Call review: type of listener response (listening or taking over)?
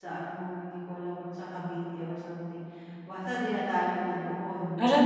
taking over